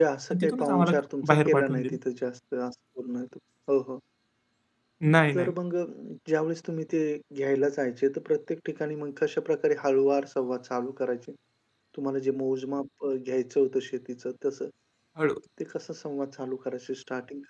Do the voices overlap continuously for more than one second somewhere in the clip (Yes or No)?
Yes